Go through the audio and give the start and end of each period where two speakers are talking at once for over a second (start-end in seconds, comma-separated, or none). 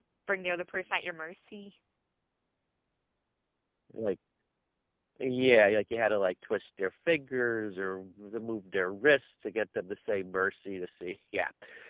none